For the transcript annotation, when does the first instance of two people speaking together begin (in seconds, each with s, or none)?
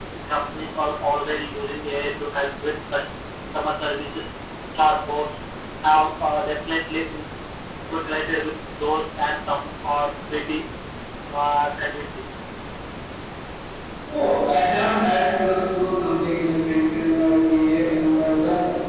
none